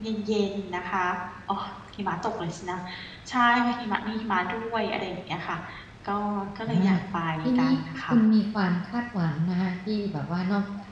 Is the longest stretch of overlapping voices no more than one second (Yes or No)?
Yes